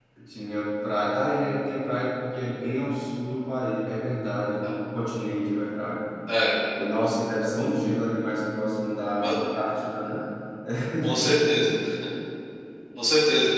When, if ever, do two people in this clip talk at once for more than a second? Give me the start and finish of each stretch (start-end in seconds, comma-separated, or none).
none